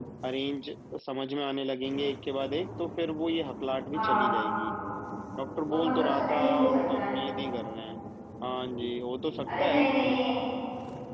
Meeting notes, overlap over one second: present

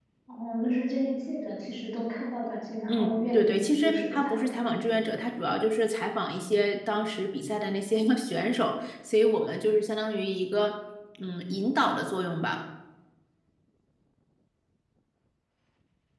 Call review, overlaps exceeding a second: present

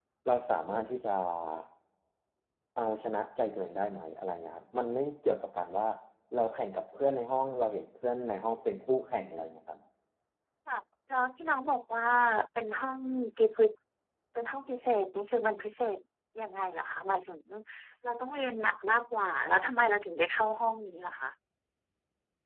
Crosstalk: none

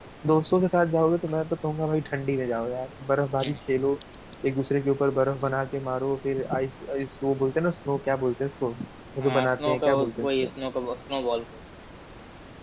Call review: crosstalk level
present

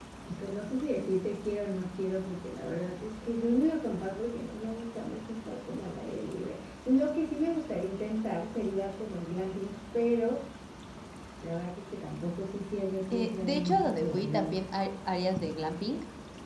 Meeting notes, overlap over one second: present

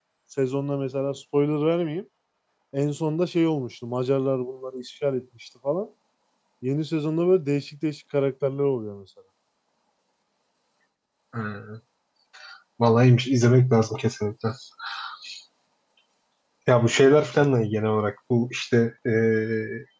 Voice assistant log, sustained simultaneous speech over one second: none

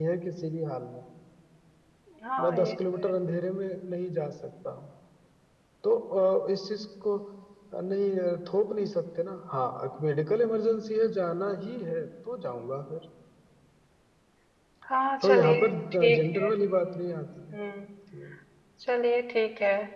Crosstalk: present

